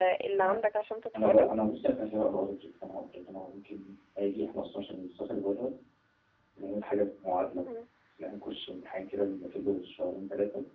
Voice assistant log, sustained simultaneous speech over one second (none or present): none